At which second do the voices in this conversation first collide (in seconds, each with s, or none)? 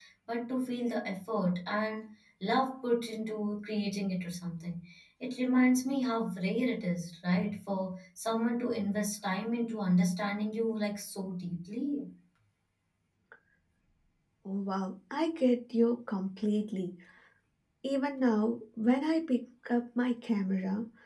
none